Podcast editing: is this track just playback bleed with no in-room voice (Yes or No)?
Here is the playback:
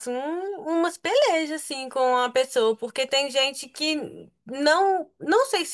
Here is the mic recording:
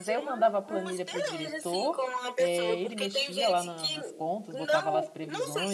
No